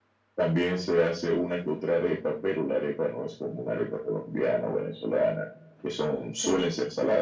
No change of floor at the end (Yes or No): Yes